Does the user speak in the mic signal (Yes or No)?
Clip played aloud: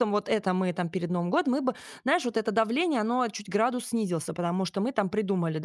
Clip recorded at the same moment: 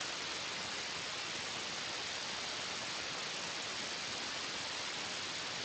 No